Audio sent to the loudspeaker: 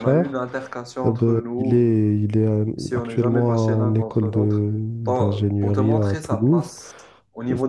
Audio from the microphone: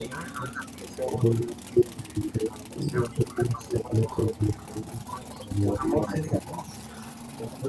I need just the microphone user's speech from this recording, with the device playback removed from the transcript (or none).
none